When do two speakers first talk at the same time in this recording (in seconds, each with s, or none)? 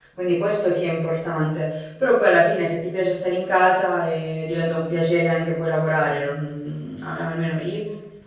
none